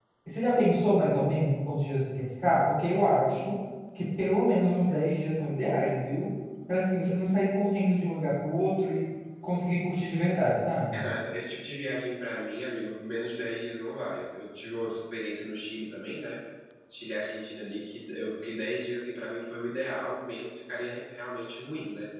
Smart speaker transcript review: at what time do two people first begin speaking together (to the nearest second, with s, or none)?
none